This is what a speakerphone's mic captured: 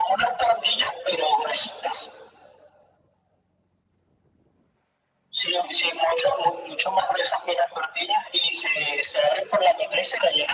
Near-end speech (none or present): none